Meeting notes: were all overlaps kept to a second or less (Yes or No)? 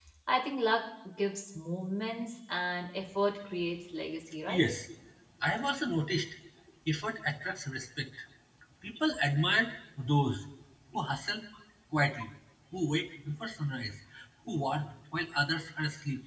Yes